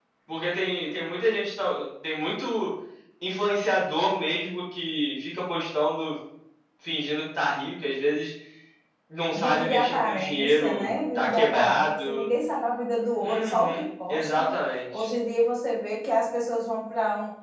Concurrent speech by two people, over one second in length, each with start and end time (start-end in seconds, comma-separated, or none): 9.3-12.3, 13.2-14.5